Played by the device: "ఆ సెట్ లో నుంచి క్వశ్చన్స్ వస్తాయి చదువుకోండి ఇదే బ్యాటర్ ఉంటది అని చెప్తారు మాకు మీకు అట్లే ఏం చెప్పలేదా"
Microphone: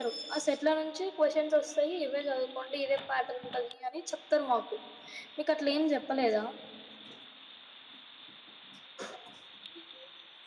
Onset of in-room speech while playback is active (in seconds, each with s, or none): none